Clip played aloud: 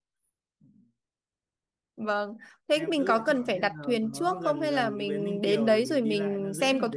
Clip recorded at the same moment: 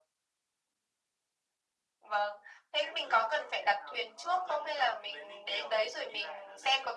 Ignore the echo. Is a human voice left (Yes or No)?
No